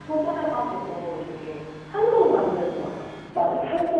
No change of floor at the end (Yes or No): No